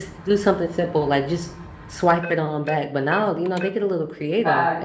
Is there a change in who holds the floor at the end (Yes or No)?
Yes